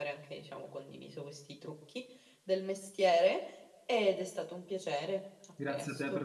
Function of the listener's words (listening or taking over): taking over